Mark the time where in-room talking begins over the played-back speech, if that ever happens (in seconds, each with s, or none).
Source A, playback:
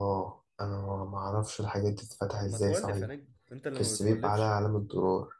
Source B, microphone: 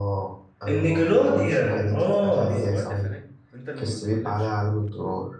0.7 s